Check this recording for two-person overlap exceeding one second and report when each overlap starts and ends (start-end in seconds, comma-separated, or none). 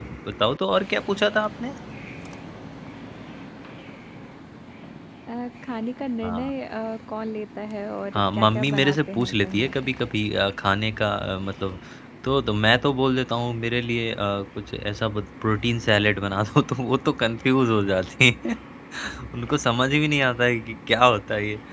8.1-9.7